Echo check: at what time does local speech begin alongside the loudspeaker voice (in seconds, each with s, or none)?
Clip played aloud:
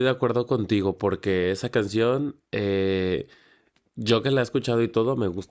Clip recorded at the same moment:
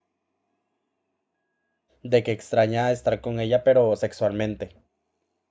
2.0 s